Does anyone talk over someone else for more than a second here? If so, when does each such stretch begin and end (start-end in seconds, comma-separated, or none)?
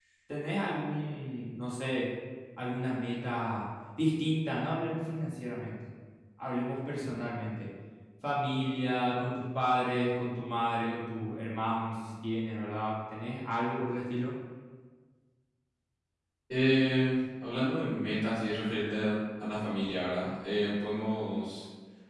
none